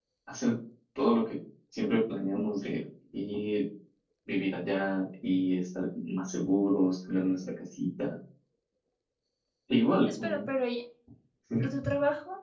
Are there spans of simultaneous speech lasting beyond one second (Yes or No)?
No